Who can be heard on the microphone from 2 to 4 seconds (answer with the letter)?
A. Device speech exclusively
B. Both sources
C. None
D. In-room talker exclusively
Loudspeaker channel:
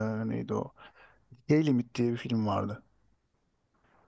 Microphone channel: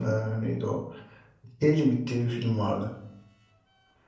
A